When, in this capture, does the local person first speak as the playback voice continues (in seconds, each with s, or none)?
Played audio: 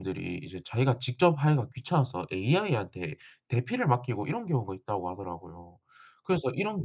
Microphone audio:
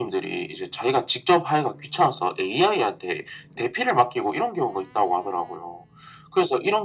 none